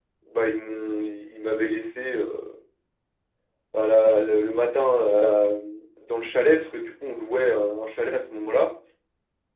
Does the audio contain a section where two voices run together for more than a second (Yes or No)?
No